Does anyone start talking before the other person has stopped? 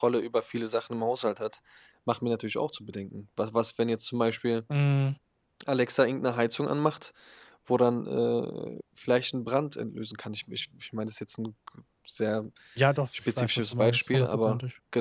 Yes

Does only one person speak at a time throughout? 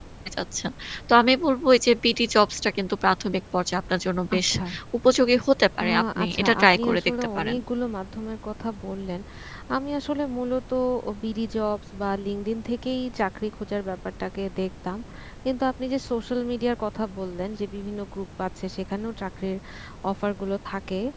No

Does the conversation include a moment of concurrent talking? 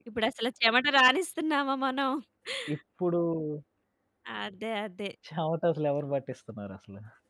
No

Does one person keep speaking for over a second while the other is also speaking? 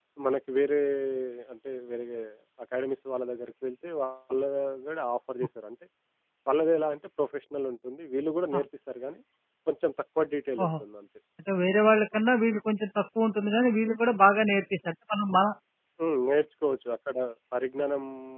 No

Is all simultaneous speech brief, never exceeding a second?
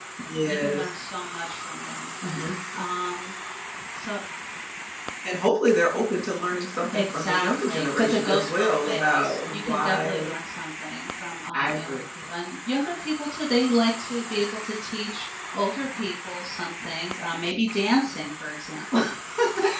No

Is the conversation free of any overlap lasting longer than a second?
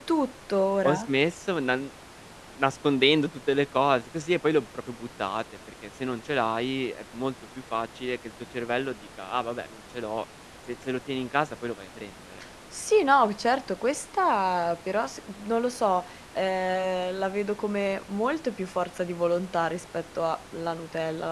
Yes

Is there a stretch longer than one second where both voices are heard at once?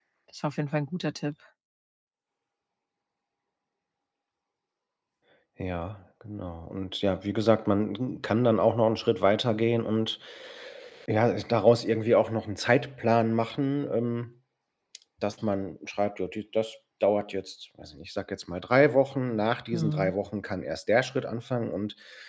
No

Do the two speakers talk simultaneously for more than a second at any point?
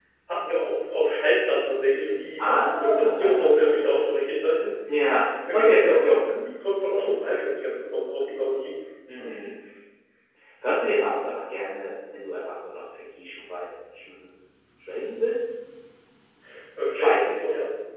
Yes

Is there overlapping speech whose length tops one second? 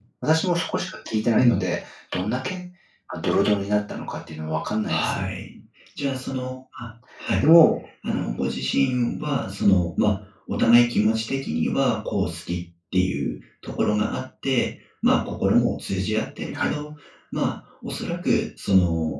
No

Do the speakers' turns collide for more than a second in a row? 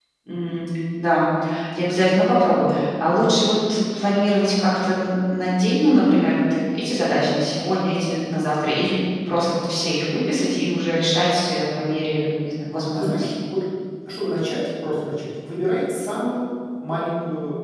No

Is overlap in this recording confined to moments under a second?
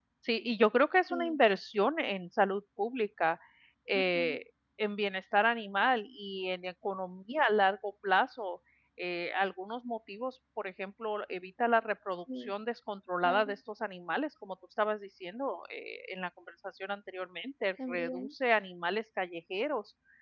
Yes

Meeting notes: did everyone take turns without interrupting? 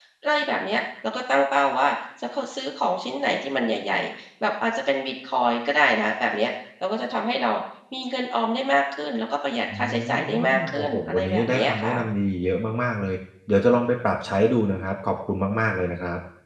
No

